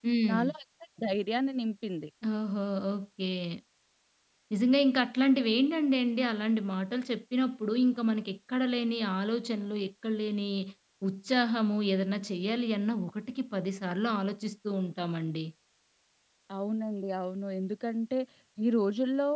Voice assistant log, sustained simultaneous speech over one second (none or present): none